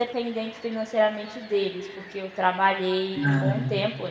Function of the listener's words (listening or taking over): listening